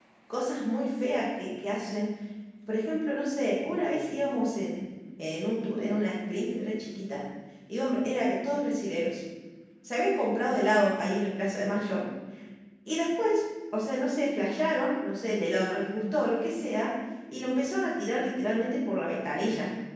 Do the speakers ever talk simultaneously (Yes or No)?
No